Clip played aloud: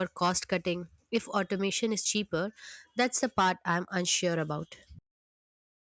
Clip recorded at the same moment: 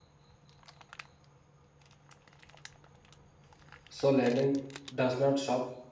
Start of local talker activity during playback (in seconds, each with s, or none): 3.9 s